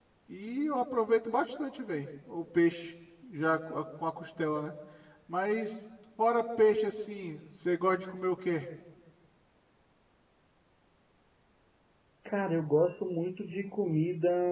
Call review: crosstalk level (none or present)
none